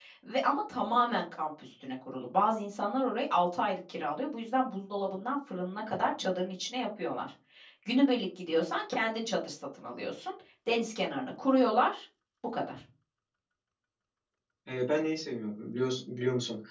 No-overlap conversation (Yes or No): Yes